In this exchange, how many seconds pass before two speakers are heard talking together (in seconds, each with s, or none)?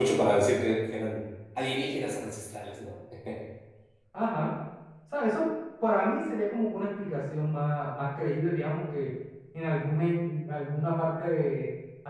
none